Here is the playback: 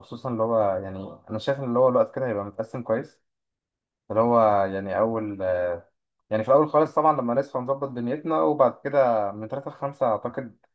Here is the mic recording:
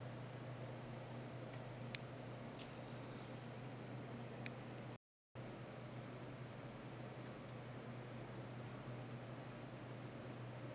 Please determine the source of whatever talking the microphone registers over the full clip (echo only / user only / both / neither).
neither